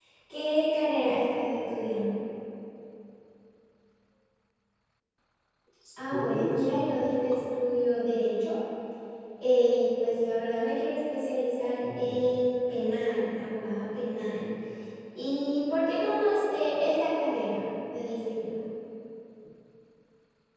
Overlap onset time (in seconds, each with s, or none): 6.1 s